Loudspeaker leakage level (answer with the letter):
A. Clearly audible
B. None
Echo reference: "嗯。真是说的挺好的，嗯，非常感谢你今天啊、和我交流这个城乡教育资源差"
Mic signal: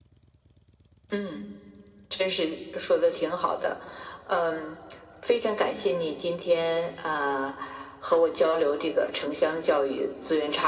A